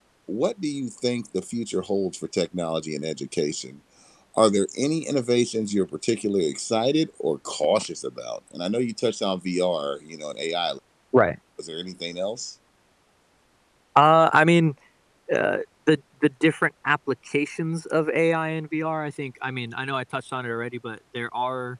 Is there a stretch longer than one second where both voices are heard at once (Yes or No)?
No